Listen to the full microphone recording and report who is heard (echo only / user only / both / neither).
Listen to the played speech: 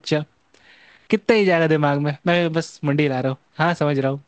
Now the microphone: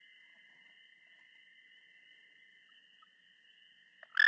neither